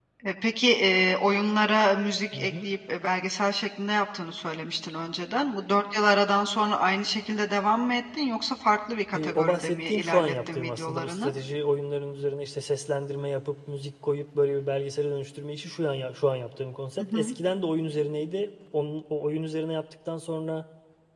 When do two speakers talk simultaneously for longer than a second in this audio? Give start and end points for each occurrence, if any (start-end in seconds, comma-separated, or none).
9.1-11.3